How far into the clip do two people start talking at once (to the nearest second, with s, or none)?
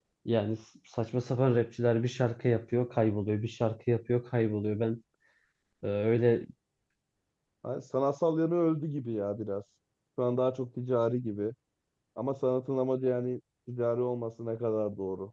none